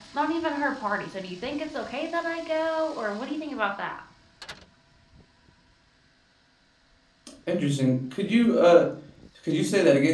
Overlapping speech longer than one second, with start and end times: none

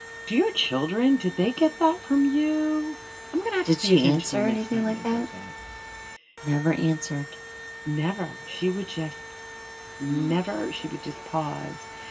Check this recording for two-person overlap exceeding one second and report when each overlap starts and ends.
3.6-5.2

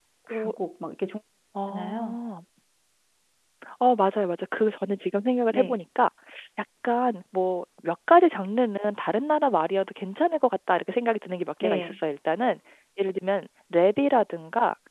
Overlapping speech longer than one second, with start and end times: none

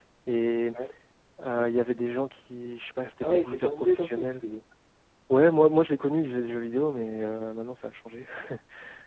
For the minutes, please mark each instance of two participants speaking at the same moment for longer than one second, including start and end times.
3.2-4.4

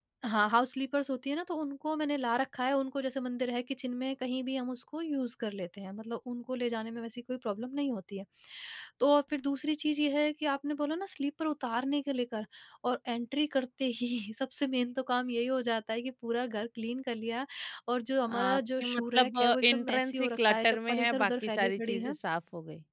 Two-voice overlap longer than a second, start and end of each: 18.3-22.1

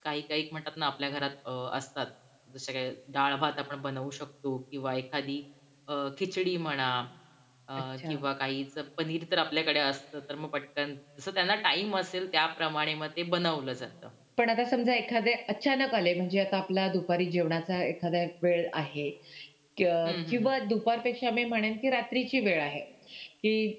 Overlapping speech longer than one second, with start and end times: none

